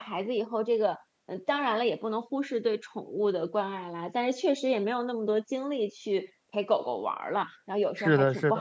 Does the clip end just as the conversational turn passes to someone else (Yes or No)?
Yes